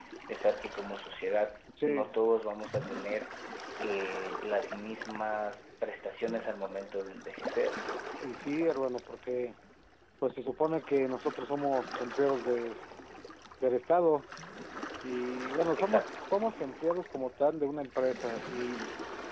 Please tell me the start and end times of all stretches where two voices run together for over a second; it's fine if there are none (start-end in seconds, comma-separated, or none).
none